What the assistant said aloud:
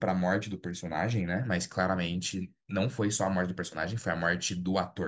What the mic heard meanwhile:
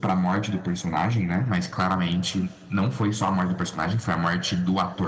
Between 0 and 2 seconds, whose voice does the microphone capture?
echo only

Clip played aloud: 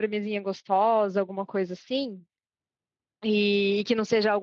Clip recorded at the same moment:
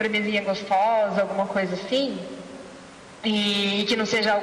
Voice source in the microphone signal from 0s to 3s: echo only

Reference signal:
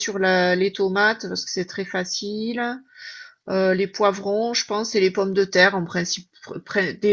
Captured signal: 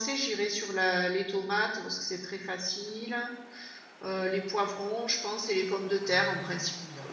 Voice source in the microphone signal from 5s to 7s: both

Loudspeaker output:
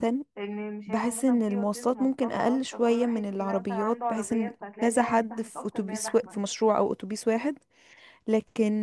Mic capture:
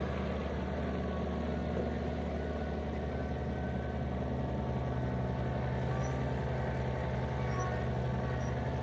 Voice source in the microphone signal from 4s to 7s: neither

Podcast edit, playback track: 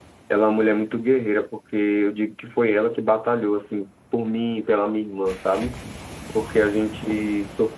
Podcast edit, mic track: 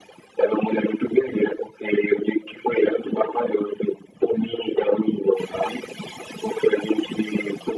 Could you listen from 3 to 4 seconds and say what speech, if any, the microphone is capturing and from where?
echo only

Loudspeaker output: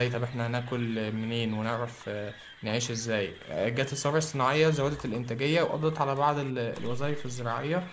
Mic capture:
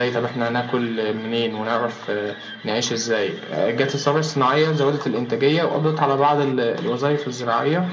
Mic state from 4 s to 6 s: echo only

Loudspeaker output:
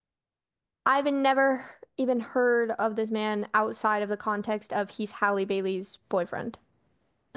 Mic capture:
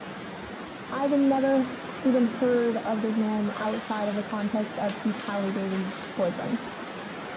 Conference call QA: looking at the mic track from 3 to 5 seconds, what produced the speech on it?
echo only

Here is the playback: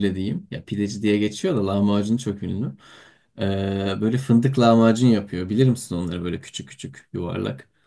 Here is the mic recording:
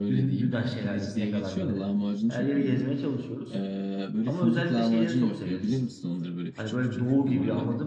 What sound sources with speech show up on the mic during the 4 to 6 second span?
both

